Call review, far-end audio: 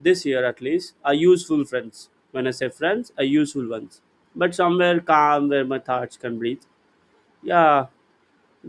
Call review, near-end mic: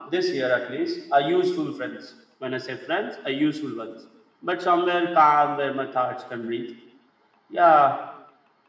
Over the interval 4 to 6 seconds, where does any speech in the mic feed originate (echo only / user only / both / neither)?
echo only